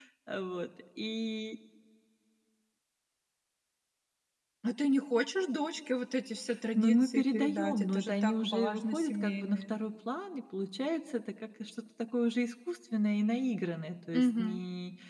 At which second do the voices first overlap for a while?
6.8 s

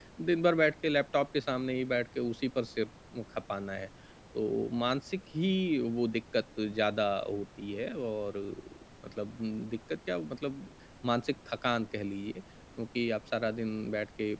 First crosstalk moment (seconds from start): none

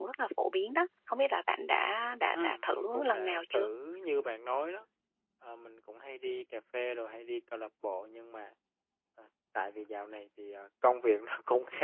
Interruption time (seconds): 2.3 s

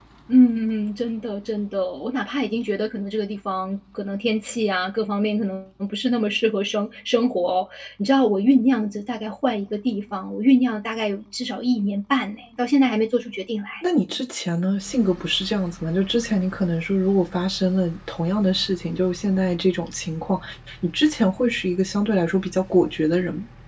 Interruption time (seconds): none

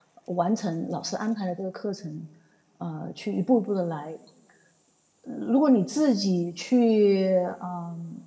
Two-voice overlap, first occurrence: none

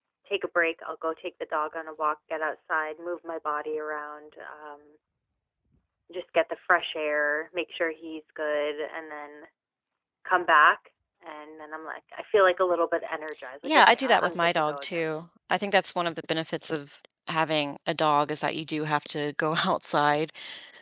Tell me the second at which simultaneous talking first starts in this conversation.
13.6 s

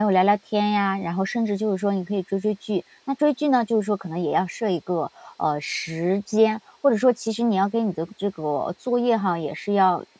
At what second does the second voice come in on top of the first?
none

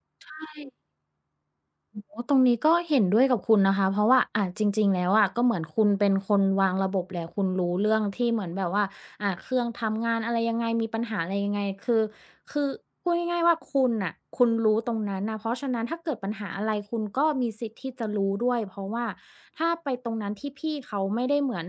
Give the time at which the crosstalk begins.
none

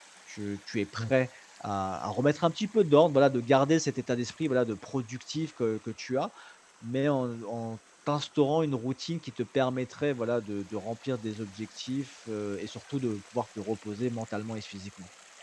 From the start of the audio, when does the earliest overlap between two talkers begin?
none

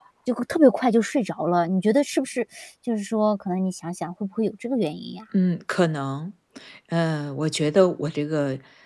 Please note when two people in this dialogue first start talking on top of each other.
none

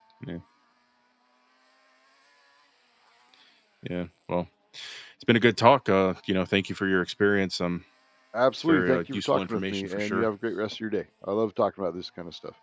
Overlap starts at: 8.6 s

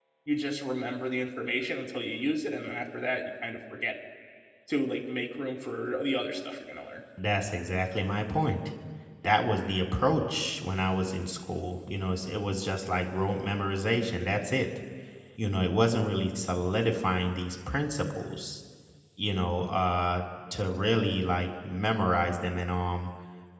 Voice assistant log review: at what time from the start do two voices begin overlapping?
none

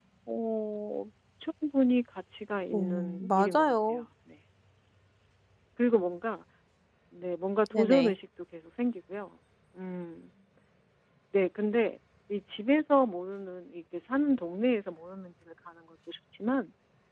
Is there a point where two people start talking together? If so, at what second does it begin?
2.7 s

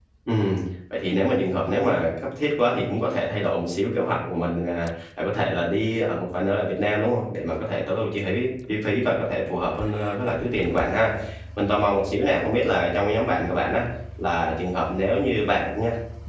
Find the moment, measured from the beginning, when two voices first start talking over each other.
none

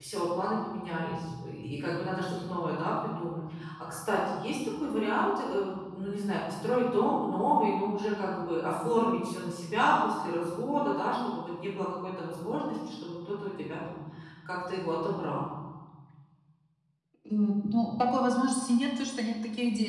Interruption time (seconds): none

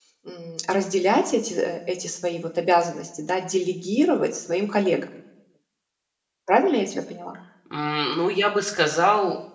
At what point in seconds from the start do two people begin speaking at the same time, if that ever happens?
none

